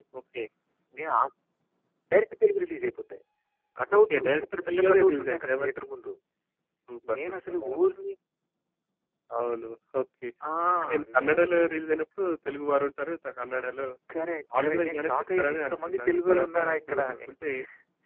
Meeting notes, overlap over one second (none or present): present